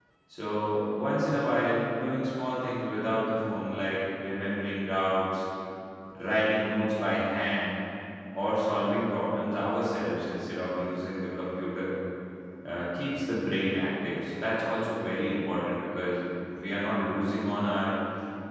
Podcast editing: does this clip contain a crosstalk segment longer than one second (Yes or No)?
No